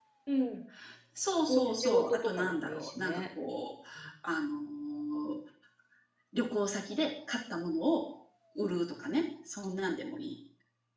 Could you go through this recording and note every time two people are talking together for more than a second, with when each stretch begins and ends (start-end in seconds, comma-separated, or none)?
1.5-3.2